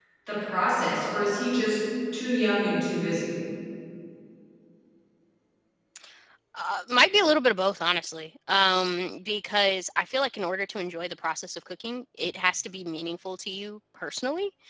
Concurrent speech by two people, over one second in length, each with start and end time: none

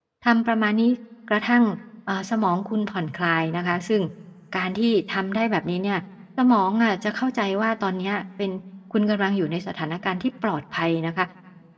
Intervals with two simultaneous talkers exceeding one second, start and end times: none

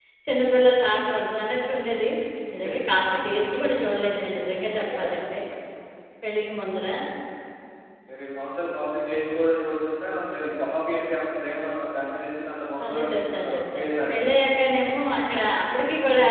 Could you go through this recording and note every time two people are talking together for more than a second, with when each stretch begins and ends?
12.8-14.3

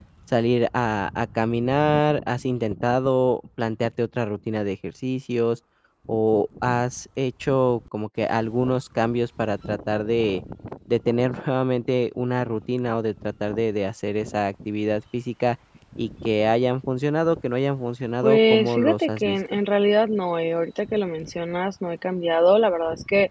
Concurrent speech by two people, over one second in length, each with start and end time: 18.2-19.6

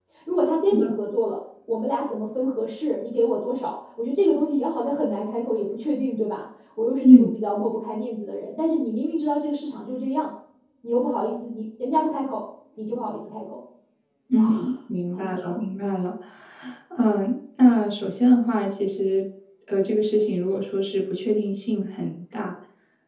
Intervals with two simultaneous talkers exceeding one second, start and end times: none

